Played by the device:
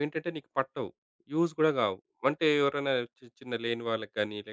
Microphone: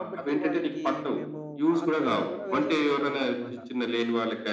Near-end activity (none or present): present